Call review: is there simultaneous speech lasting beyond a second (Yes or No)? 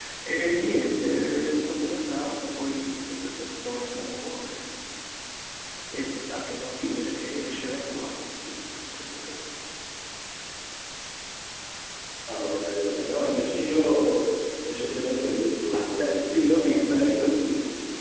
Yes